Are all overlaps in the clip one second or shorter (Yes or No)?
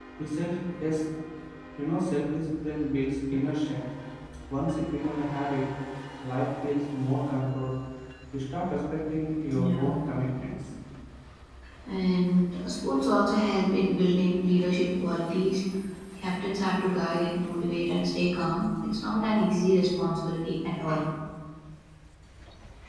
Yes